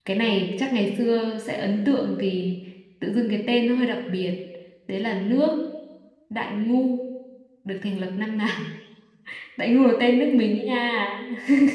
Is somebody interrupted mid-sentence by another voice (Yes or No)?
No